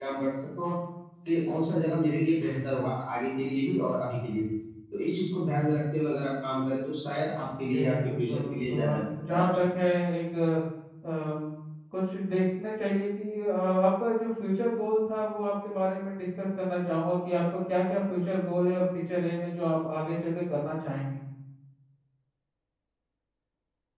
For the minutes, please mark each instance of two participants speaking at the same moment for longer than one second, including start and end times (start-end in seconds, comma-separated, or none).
7.6-9.8